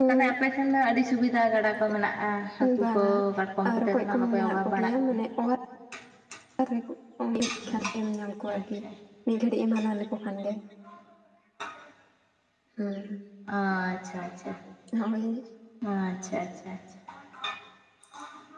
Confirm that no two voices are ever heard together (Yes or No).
No